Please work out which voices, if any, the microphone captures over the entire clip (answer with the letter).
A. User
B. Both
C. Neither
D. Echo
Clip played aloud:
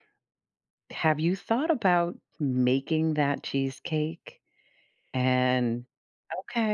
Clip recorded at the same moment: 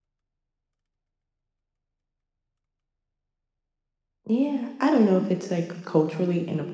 A